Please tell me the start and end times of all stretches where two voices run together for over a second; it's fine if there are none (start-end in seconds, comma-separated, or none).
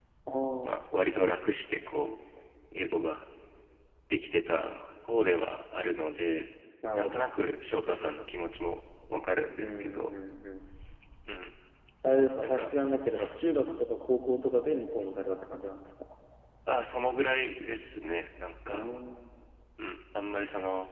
none